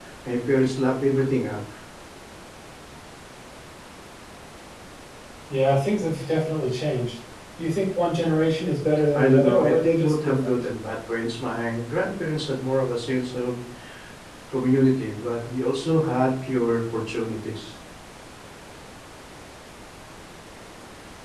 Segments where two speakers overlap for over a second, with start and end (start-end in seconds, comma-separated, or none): 9.1-10.5